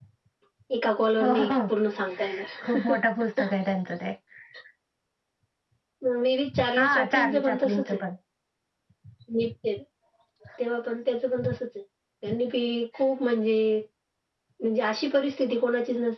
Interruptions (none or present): present